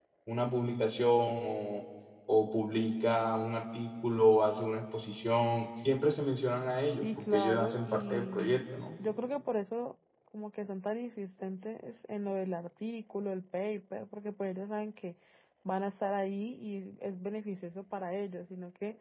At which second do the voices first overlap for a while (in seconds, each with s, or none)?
7.0 s